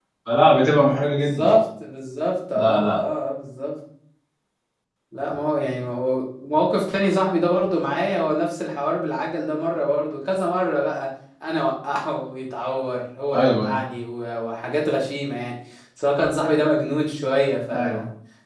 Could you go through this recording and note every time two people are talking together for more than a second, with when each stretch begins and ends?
none

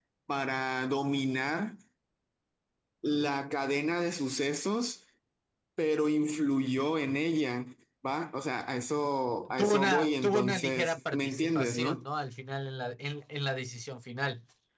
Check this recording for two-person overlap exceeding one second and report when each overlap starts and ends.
9.6-12.0

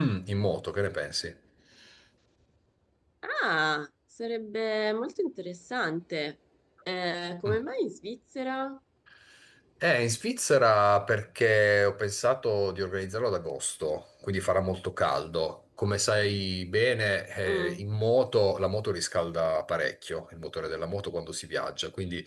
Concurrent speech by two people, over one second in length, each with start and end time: none

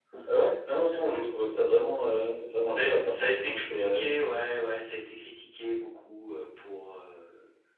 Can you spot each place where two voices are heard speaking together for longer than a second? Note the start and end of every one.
2.7-4.0

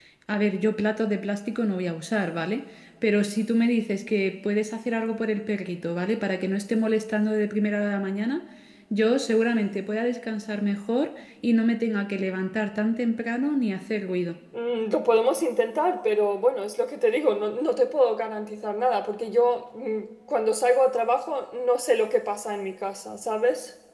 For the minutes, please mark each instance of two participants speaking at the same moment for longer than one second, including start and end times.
none

